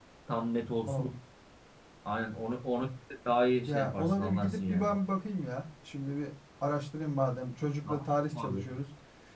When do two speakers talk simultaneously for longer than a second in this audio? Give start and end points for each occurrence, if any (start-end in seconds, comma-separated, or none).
3.7-4.9